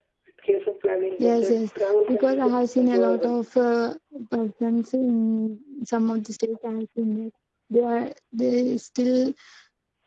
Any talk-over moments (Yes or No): Yes